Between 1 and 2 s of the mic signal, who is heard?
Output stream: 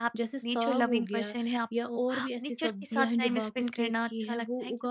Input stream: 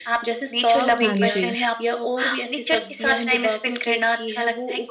both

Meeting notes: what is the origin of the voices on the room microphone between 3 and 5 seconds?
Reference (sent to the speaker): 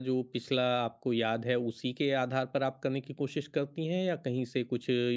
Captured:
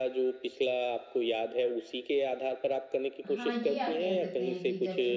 both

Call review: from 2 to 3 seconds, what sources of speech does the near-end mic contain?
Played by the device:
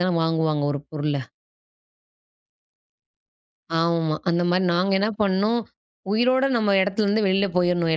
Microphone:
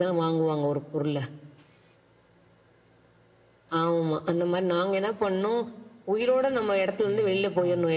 neither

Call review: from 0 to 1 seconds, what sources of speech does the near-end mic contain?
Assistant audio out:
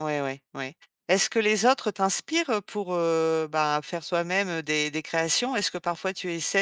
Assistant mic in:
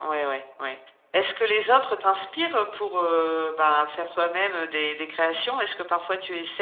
echo only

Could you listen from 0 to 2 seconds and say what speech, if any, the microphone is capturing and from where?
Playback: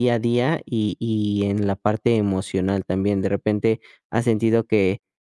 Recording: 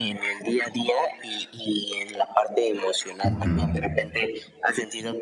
echo only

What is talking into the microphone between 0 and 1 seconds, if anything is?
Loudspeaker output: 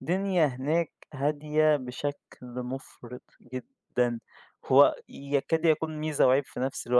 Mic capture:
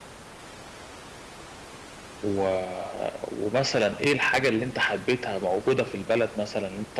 neither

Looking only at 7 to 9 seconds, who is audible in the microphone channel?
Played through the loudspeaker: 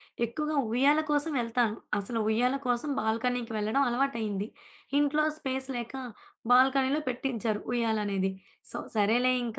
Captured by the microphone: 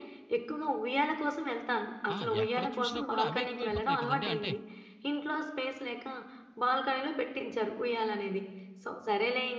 echo only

